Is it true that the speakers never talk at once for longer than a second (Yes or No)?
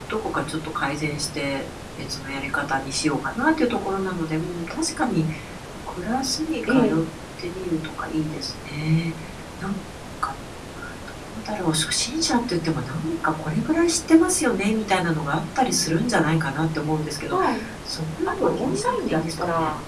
No